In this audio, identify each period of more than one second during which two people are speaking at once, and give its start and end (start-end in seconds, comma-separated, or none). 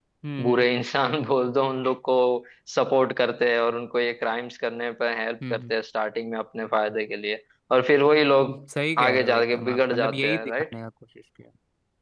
9.1-10.7